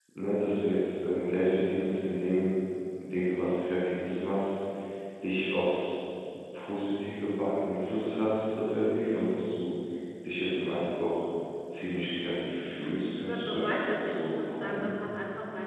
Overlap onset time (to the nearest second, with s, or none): 13 s